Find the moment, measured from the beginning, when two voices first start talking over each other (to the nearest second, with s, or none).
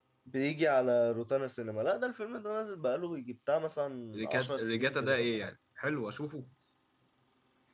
4 s